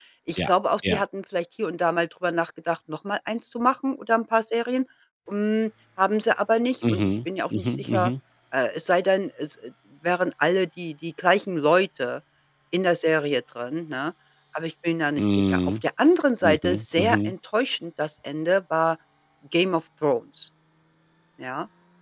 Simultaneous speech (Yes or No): Yes